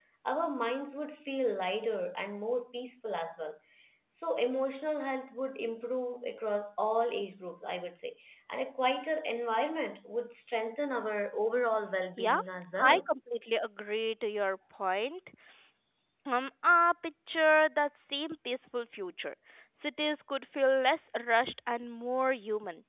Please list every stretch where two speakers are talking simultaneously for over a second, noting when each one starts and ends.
none

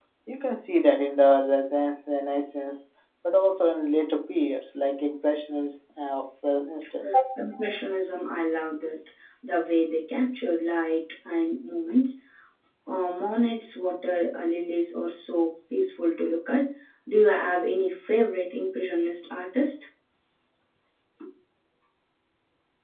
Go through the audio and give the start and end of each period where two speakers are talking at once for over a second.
none

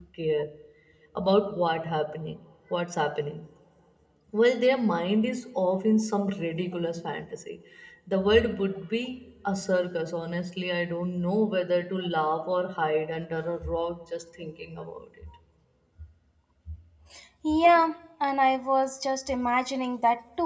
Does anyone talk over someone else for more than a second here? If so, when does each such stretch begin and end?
none

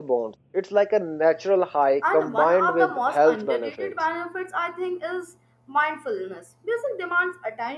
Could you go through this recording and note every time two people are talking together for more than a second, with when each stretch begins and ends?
2.1-3.9

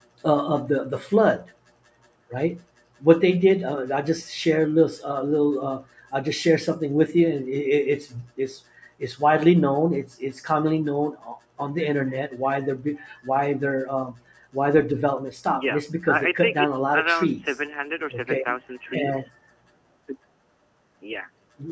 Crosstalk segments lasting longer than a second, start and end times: 15.5-17.4

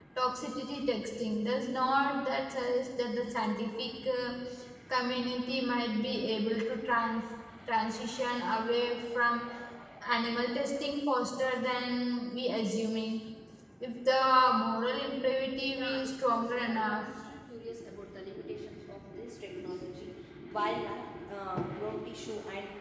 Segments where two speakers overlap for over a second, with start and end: 15.7-17.0

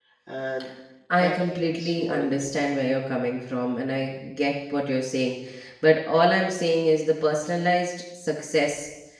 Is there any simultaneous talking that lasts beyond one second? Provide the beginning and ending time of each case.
1.1-2.7

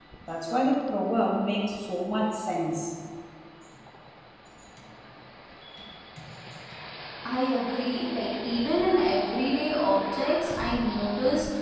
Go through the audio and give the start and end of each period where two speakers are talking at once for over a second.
none

